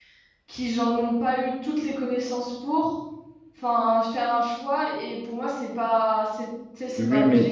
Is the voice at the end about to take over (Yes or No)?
Yes